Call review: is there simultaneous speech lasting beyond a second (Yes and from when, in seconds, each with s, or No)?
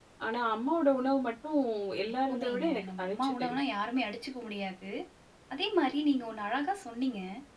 Yes, from 2.3 s